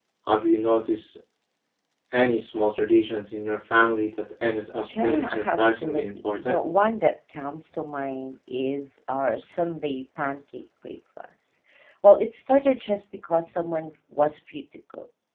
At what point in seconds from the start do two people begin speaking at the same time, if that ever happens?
4.8 s

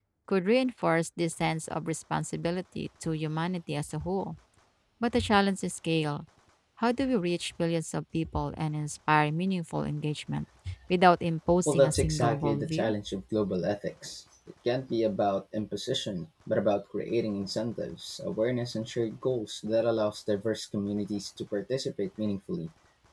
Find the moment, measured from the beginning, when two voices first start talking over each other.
11.7 s

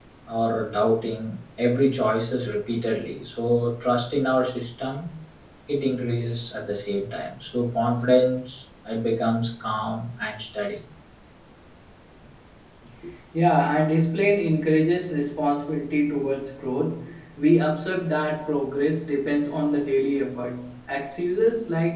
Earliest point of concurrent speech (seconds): none

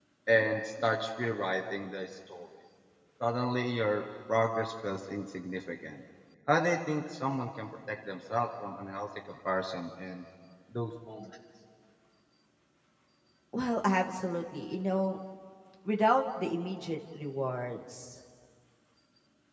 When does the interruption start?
none

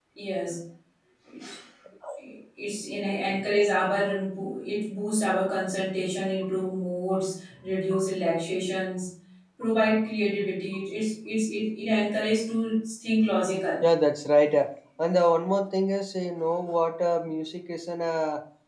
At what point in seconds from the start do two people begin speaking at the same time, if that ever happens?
none

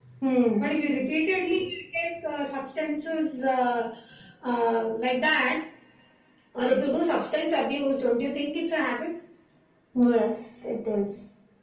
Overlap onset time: none

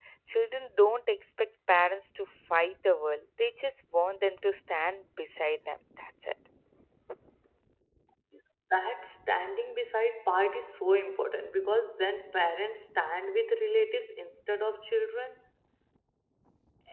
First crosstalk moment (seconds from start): none

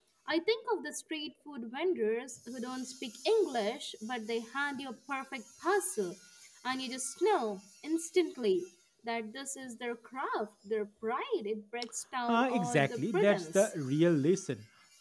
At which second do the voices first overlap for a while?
12.3 s

